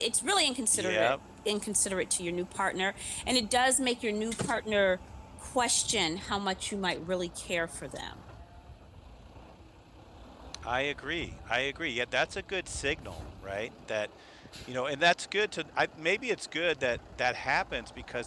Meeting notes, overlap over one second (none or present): none